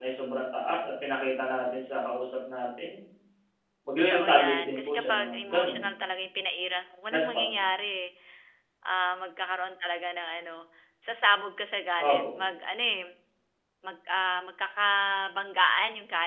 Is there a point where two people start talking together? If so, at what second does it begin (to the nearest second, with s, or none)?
4 s